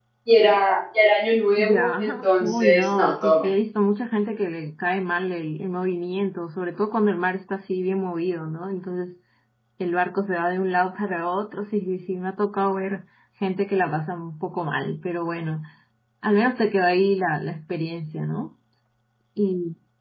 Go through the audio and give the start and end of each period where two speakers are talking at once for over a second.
1.6-3.5

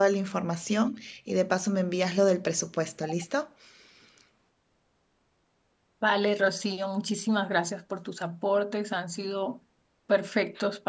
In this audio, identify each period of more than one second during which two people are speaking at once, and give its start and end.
none

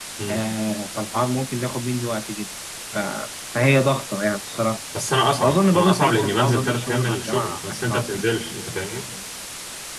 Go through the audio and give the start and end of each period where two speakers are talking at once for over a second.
5.4-8.2

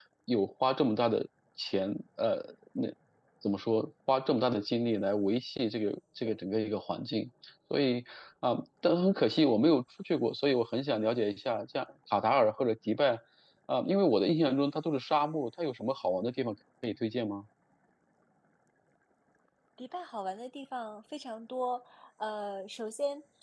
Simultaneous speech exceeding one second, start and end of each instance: none

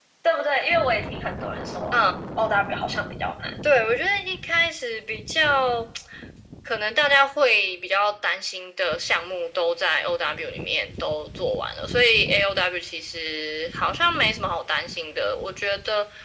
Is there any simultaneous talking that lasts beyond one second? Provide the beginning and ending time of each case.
none

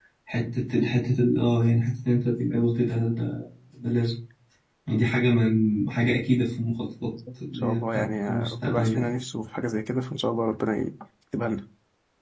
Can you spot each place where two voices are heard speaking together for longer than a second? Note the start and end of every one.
7.5-9.1

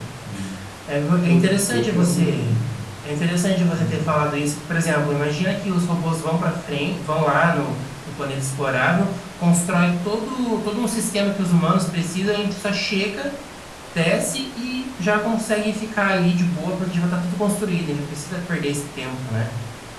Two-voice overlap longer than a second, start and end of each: 1.2-2.6

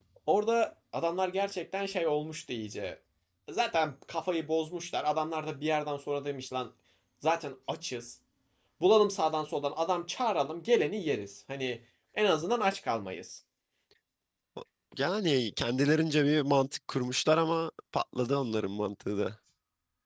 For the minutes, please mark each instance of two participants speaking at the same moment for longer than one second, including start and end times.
none

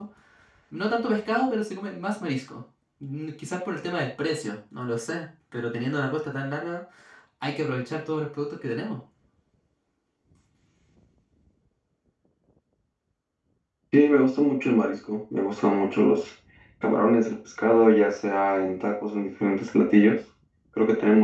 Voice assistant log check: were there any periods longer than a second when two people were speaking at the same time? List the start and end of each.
none

